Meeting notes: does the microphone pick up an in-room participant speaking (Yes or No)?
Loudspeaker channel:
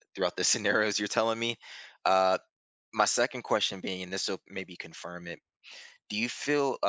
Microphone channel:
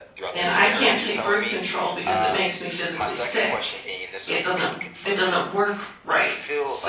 Yes